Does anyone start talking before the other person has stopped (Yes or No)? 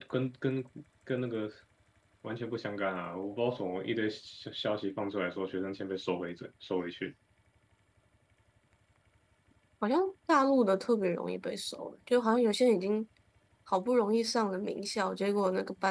No